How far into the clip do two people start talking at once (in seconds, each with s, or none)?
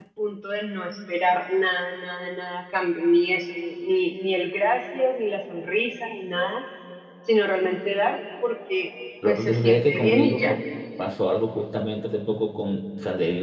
9.2 s